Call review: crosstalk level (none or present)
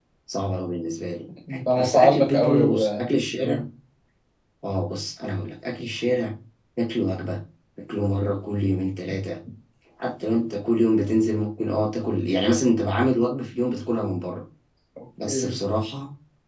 present